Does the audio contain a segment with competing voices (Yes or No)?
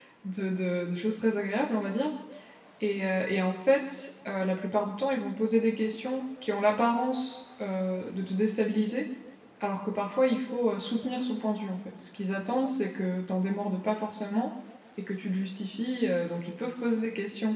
No